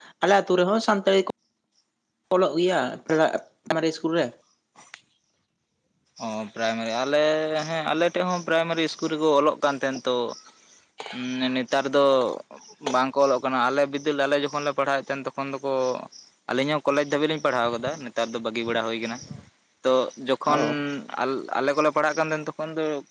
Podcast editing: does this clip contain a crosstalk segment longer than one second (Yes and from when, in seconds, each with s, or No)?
No